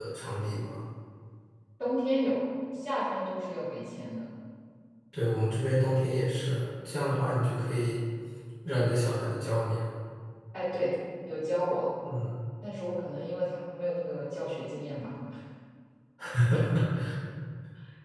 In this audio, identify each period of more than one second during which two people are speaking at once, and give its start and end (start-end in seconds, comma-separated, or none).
none